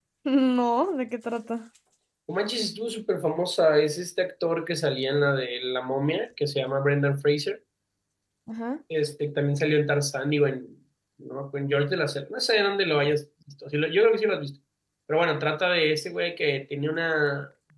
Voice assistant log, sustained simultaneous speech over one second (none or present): none